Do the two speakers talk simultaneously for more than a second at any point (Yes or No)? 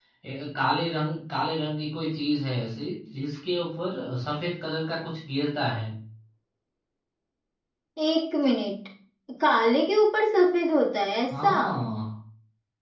No